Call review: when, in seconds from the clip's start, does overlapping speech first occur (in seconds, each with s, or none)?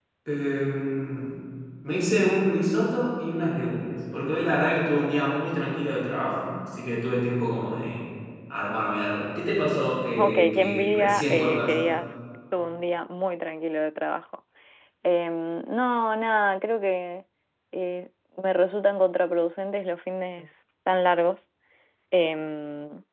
10.1 s